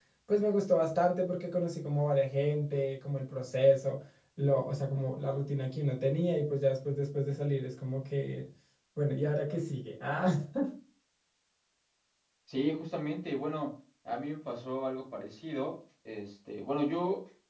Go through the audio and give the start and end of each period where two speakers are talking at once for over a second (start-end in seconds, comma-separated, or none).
none